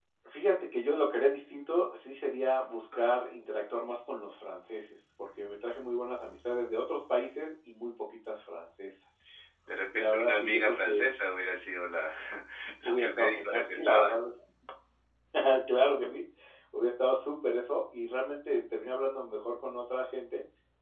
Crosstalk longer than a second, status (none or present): present